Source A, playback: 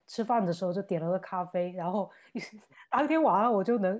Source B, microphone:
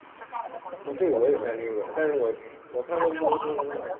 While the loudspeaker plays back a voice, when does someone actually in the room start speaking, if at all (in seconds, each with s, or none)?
0.8 s